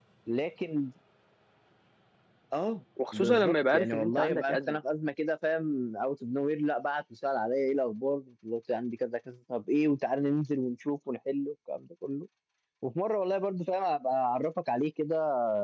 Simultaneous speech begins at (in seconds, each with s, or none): 3.1 s